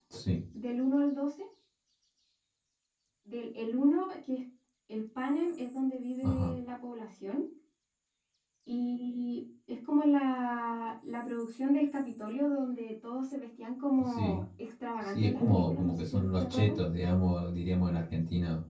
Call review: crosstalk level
present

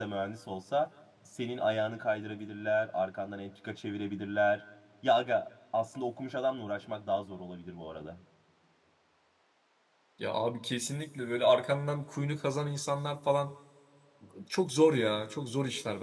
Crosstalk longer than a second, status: none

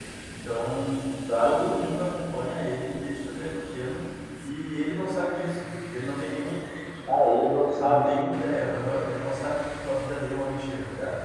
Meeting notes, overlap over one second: none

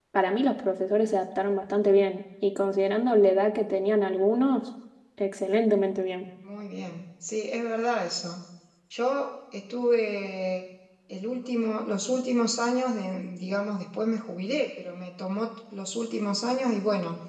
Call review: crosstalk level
none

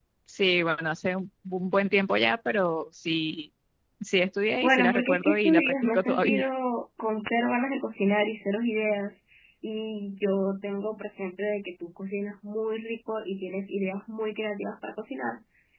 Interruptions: present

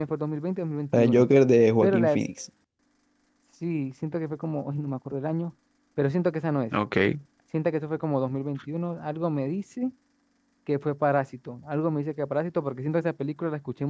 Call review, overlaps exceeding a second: none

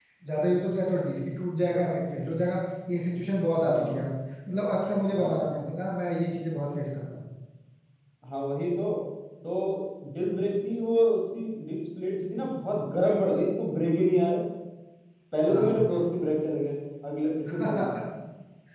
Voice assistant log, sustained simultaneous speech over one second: none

